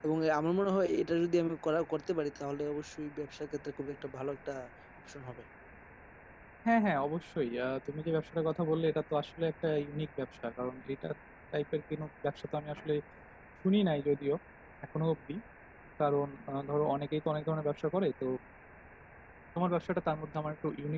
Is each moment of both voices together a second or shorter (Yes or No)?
Yes